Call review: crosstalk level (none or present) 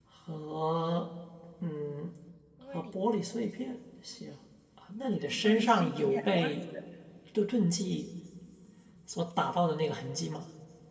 present